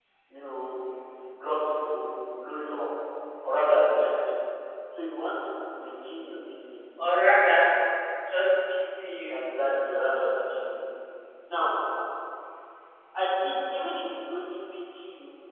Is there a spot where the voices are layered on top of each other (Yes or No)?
No